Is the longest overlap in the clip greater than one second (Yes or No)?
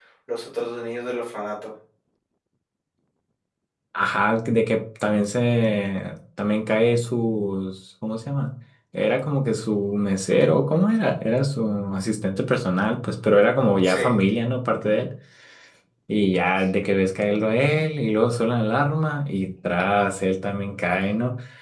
No